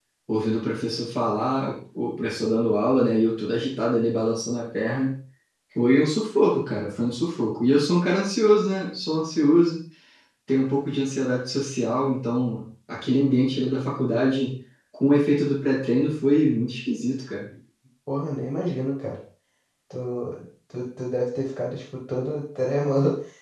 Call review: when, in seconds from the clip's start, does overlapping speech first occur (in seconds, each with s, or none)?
none